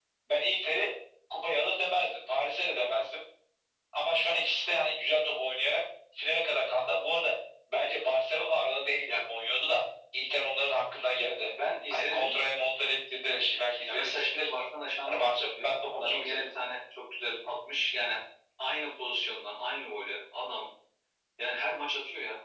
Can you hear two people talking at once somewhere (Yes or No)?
Yes